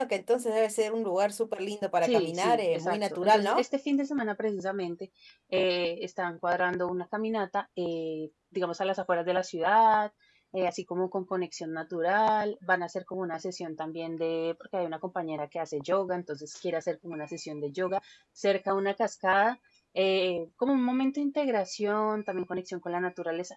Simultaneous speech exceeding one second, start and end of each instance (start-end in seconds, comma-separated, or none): 2.0-3.6